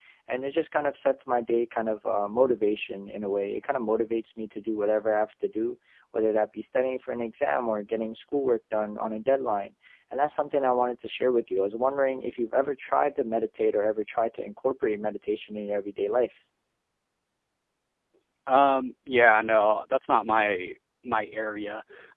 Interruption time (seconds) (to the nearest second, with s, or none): none